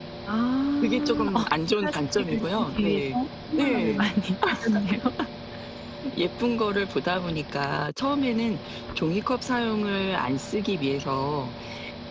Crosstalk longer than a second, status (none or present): present